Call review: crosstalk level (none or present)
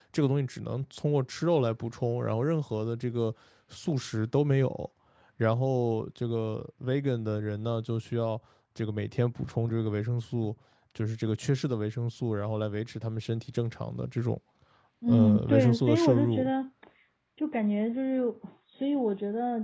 present